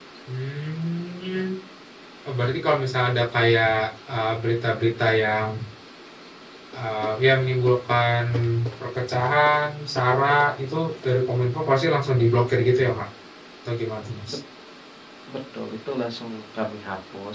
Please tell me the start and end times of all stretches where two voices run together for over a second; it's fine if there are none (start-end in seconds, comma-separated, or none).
none